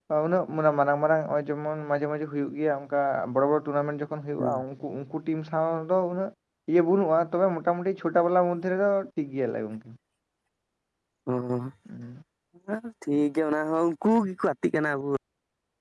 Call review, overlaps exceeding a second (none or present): none